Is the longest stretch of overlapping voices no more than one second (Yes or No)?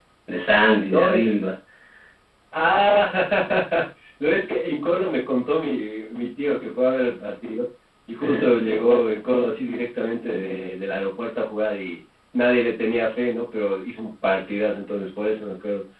Yes